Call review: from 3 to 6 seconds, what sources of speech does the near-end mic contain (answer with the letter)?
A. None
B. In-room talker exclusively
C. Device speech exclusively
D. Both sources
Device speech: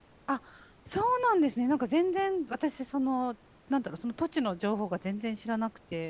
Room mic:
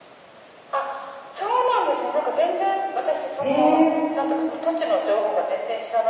D